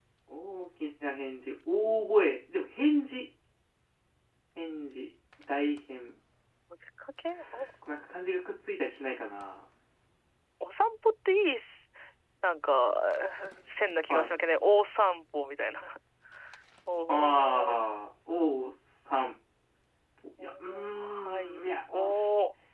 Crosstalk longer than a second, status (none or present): present